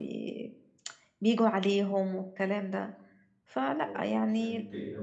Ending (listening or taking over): taking over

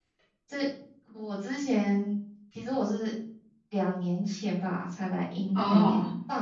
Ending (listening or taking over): listening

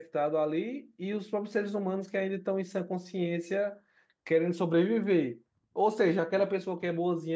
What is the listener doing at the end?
listening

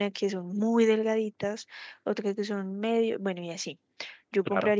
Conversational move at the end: listening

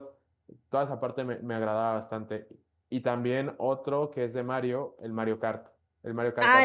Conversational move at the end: taking over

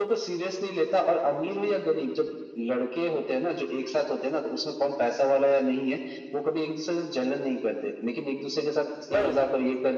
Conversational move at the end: listening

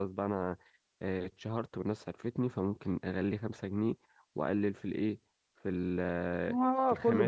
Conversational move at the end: taking over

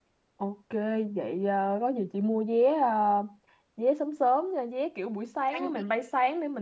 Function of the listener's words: listening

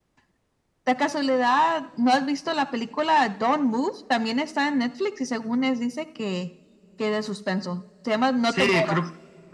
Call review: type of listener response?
taking over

